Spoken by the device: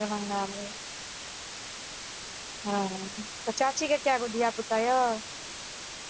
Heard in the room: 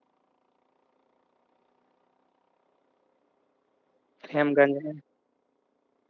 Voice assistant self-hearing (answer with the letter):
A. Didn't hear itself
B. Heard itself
A